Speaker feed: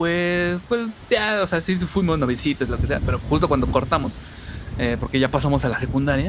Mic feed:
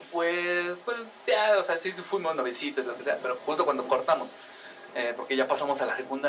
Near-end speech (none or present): none